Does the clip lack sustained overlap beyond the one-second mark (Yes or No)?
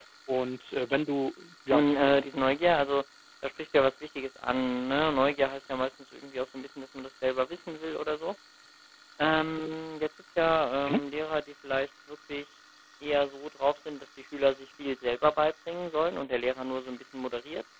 Yes